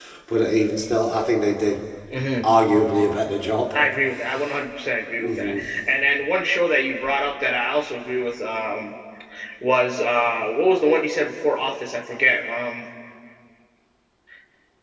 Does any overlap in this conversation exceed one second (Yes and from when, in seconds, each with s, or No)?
No